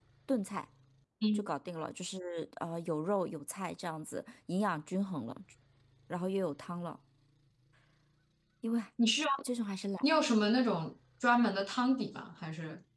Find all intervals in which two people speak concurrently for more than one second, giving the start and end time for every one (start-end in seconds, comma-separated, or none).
none